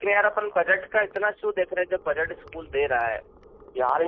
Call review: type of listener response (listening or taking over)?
taking over